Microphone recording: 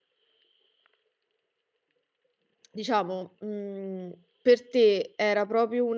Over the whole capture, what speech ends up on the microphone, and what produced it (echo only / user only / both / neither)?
user only